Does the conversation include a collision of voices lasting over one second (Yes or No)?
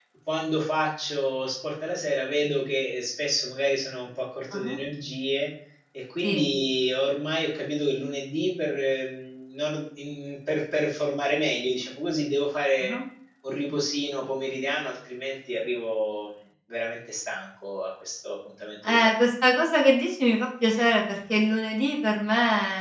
No